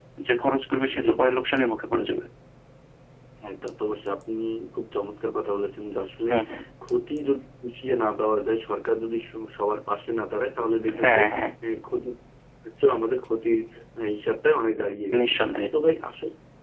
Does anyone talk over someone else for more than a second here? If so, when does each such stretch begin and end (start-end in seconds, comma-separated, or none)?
none